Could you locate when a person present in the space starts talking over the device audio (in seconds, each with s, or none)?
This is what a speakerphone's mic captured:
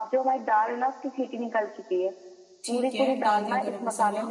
2.6 s